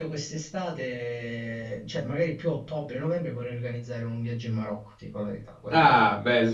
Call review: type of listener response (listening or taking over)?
taking over